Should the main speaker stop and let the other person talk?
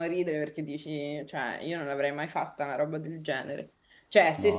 No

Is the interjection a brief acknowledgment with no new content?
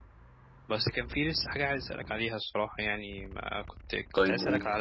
Yes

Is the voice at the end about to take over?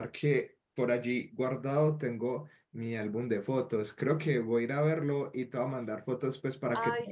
Yes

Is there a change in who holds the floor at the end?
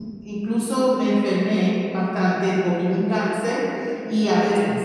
No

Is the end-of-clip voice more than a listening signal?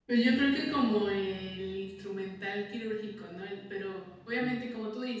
No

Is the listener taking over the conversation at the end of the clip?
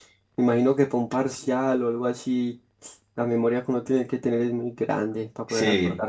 Yes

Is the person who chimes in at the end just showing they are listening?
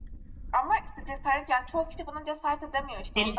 No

